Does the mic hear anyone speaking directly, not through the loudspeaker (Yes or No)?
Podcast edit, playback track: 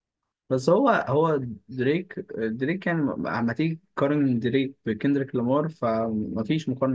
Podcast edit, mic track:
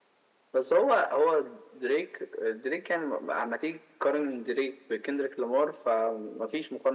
No